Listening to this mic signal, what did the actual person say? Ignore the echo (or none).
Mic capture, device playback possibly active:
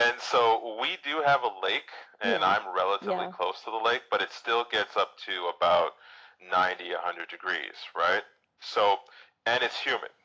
Yeah. Yeah.